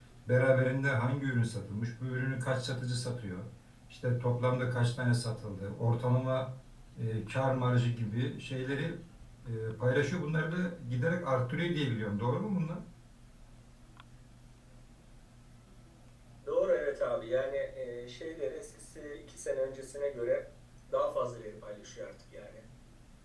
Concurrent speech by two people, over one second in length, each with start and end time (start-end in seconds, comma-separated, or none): none